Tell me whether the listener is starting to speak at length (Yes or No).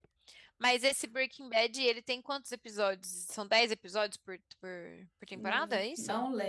Yes